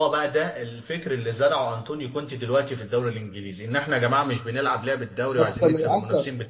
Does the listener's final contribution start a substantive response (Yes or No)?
Yes